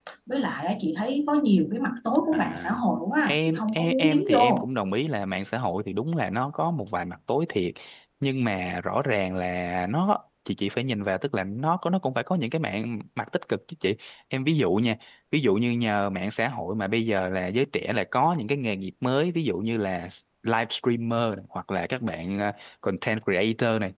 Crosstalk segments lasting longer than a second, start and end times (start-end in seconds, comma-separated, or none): 3.3-4.7